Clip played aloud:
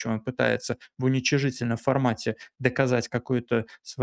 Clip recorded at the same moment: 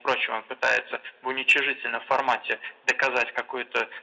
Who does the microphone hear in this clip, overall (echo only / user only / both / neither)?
echo only